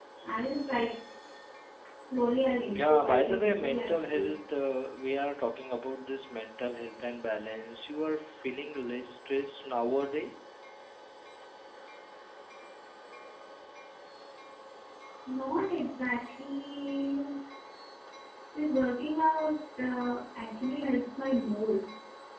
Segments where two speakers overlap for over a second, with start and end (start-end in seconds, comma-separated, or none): 2.7-4.3